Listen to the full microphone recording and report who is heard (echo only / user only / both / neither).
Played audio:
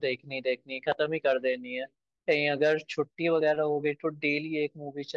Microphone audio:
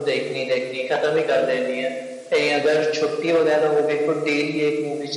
echo only